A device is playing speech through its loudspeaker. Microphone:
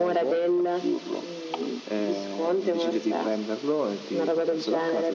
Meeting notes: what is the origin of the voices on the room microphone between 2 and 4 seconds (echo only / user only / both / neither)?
echo only